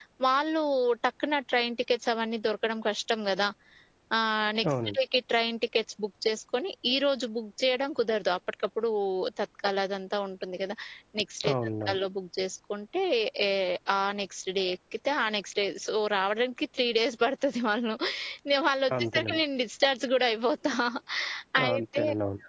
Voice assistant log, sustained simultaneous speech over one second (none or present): none